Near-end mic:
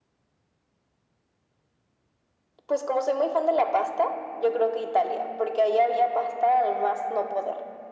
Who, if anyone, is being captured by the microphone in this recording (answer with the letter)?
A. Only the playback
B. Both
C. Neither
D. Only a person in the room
A